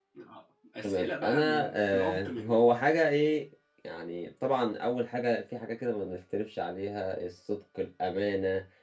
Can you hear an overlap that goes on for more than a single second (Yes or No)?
Yes